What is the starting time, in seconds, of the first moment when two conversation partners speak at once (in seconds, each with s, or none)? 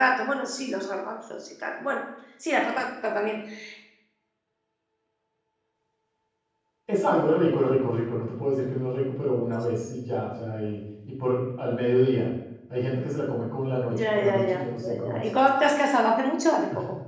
13.9 s